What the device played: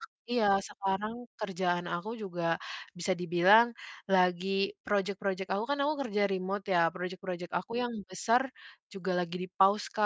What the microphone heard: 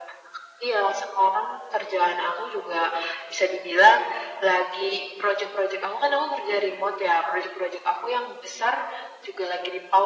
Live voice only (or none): none